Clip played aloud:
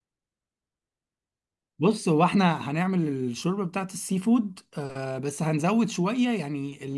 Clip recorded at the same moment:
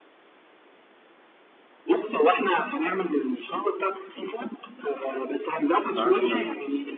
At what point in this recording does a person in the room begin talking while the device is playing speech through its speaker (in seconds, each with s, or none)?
5.7 s